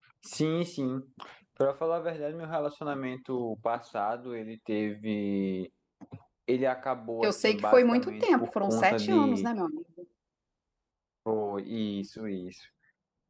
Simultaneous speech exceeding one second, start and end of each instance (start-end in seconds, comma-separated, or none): 7.2-9.5